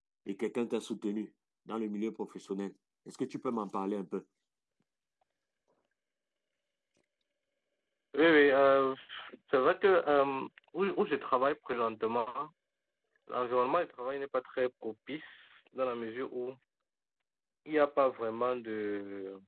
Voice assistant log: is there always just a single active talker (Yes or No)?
Yes